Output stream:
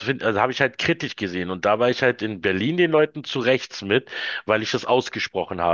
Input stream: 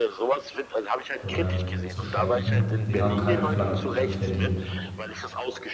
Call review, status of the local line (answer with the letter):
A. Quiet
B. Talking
B